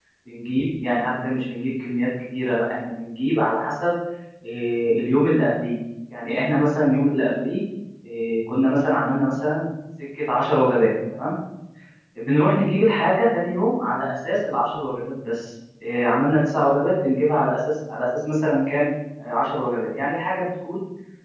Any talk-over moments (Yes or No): No